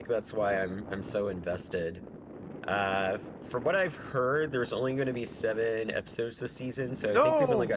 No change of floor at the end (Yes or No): Yes